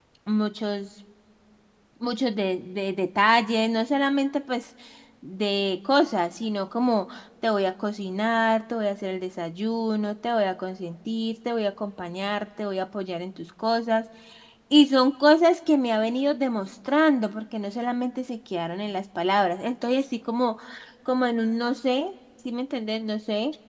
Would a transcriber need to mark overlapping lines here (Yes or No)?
No